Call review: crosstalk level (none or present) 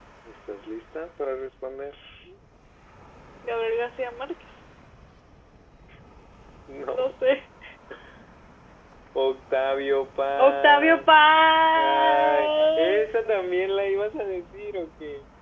present